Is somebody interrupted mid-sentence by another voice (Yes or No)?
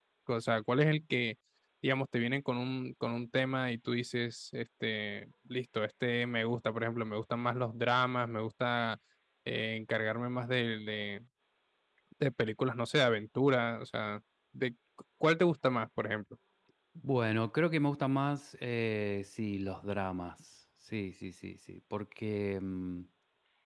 No